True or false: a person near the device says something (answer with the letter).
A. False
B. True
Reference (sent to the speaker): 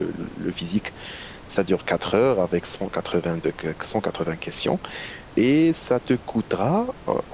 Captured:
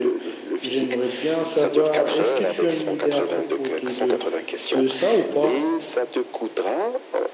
B